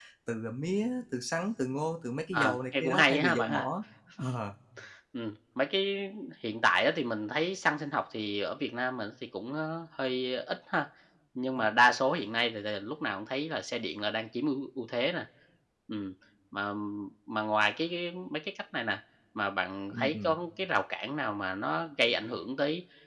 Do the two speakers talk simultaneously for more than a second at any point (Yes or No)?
Yes